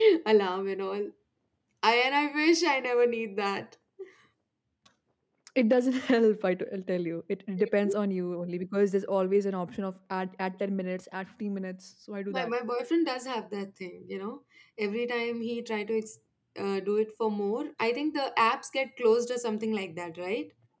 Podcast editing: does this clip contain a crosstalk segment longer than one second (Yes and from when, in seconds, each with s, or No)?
No